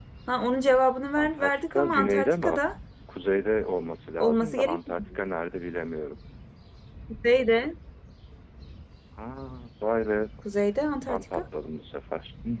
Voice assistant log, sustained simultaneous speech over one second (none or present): present